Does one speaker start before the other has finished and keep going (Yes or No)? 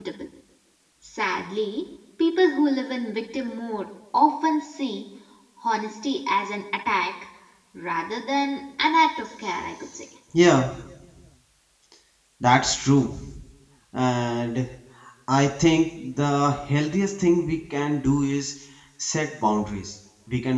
No